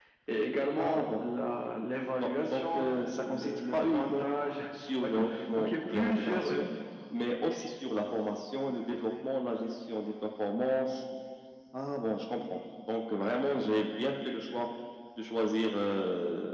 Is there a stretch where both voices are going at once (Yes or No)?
Yes